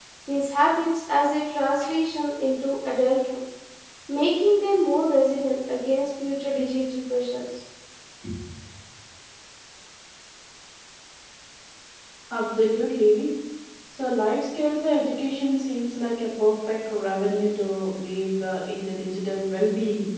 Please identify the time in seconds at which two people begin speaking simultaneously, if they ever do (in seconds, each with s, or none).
none